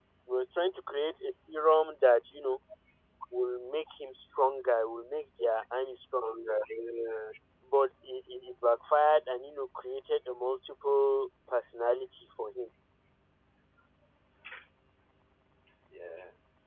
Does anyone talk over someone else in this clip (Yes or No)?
No